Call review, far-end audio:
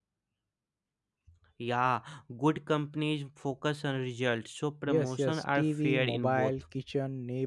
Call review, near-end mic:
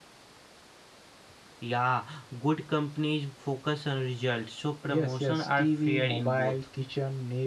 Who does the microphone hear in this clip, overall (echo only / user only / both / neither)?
echo only